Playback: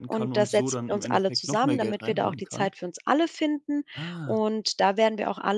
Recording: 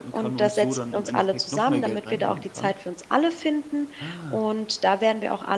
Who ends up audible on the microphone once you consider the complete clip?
echo only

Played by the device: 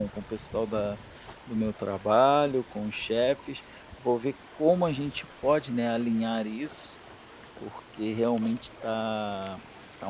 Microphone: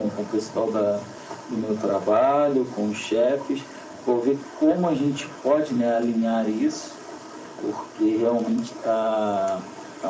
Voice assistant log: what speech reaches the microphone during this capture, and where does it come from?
echo only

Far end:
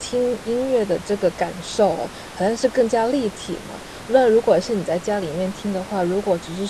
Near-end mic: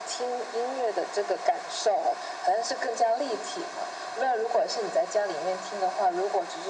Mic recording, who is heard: echo only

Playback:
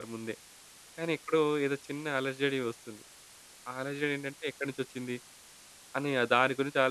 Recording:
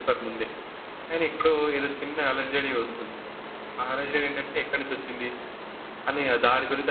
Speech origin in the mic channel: echo only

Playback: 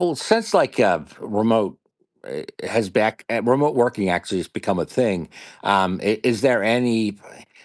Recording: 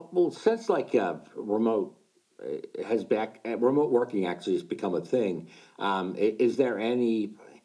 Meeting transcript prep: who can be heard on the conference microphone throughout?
echo only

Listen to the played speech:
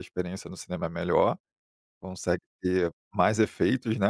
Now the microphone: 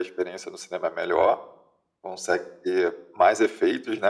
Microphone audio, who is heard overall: echo only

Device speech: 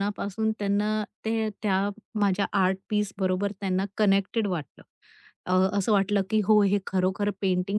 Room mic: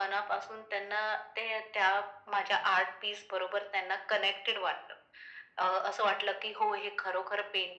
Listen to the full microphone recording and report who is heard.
echo only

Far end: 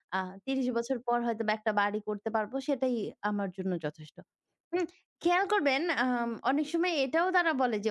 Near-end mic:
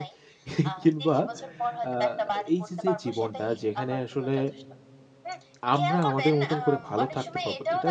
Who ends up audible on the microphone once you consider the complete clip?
both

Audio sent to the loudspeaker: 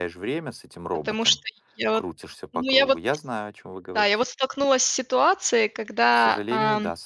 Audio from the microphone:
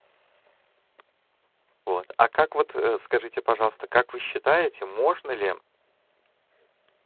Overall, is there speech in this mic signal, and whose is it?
user only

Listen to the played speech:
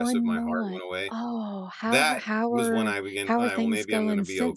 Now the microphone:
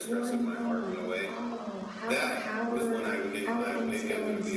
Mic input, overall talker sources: echo only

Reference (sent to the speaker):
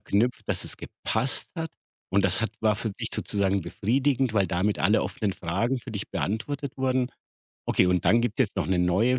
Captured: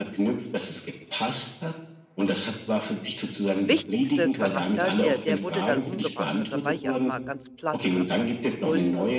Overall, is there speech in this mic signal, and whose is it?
both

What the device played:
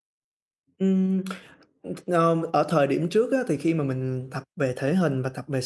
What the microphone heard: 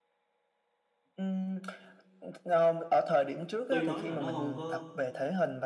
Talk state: both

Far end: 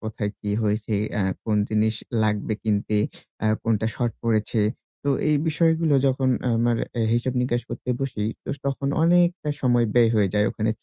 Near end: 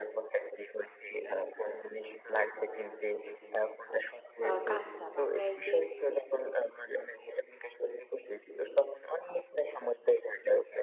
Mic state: both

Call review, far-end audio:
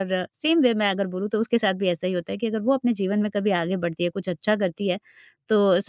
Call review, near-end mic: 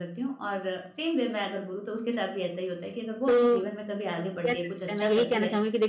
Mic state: both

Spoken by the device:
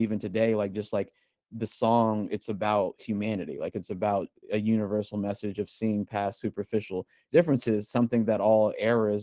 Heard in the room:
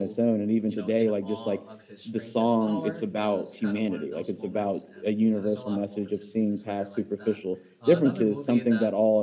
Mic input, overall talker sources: both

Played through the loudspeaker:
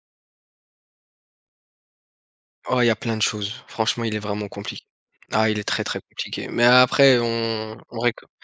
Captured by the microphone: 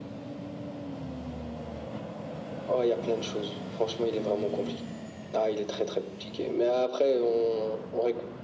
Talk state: echo only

